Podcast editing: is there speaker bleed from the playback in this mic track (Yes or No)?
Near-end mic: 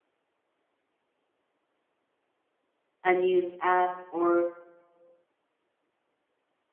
No